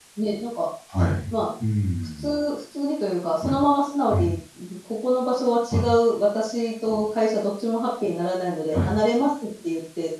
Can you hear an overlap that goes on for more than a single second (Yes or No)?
No